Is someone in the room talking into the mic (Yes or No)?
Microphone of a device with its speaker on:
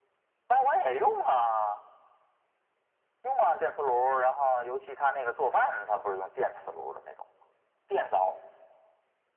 No